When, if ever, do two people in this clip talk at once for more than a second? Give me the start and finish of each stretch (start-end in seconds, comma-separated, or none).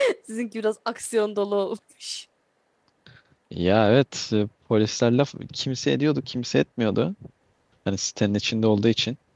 none